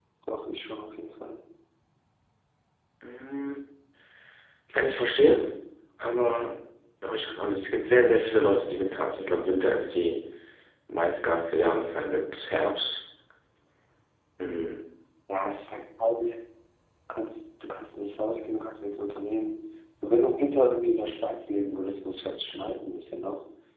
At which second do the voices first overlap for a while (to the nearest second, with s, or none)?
none